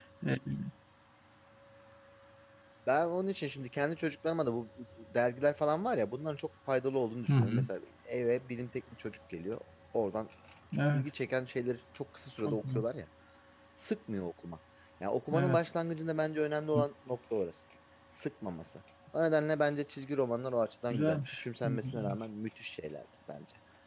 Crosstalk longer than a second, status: present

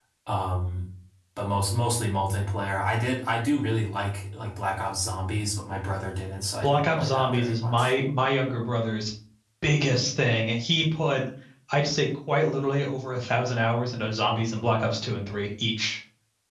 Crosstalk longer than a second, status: present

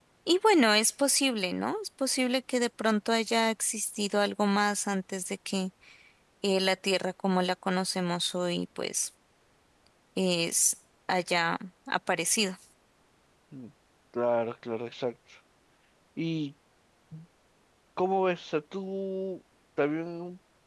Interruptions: none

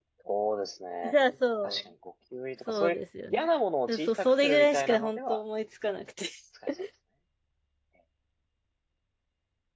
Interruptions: present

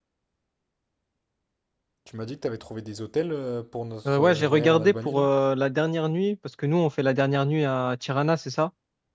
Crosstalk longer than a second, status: present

